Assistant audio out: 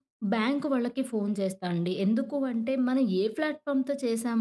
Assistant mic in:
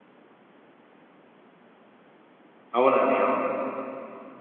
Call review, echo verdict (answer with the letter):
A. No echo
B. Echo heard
A